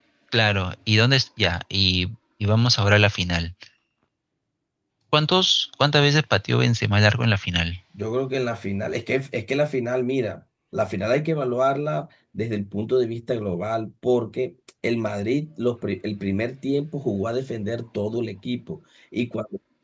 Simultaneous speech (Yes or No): No